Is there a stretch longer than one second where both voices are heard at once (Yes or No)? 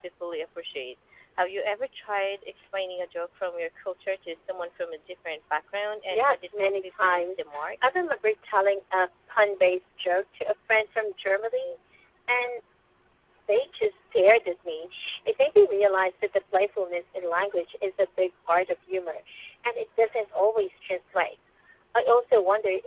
Yes